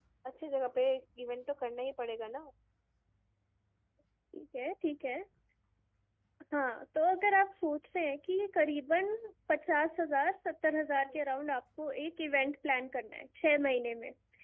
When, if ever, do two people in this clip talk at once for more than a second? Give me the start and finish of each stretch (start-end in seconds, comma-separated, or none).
none